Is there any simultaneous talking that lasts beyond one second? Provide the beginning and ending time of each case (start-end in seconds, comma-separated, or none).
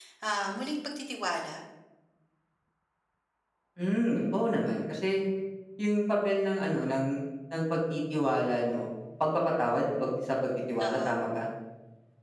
none